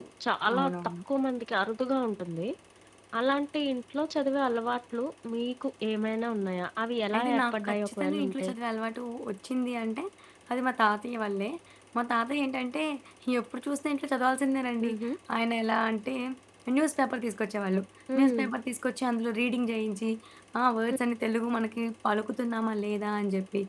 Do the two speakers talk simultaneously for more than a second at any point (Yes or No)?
Yes